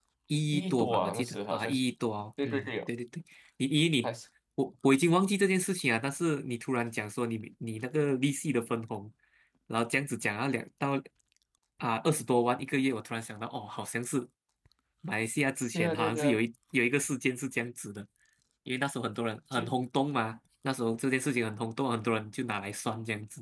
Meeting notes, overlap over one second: present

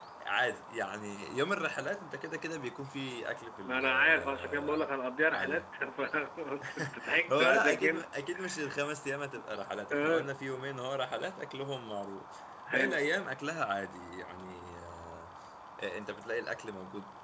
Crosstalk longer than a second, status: present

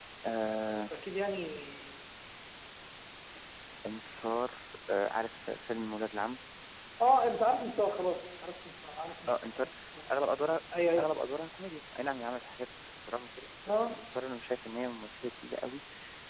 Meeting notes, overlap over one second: none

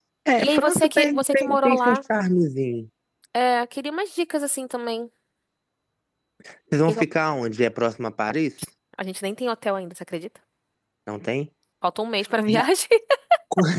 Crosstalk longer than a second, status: present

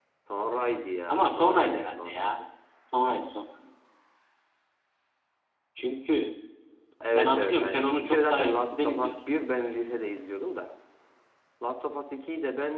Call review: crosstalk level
present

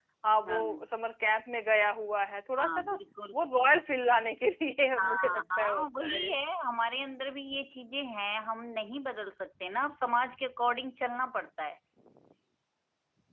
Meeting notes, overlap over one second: present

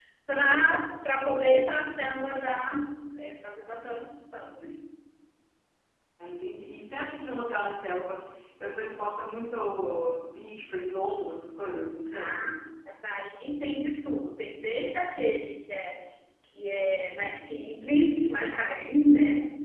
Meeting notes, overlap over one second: none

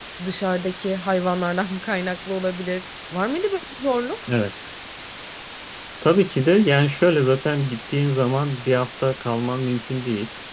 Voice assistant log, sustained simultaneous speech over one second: none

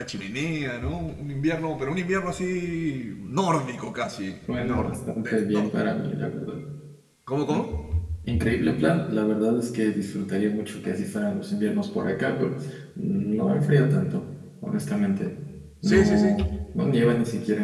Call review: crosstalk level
present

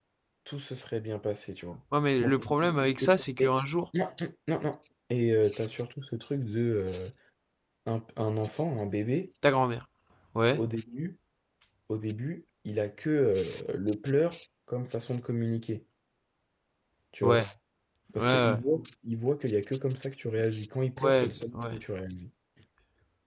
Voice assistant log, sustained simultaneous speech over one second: present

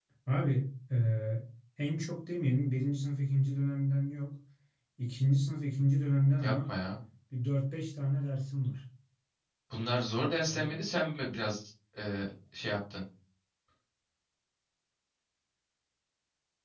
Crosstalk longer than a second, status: none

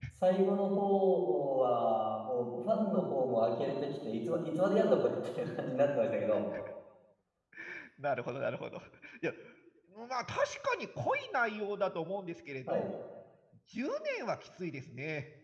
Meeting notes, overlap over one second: none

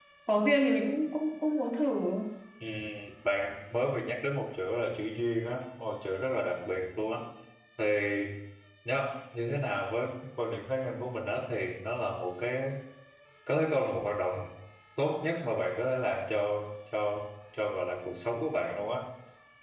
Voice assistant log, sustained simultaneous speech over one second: none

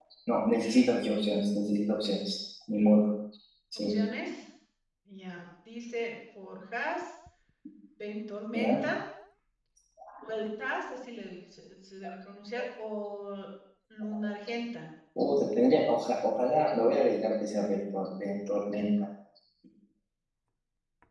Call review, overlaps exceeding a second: none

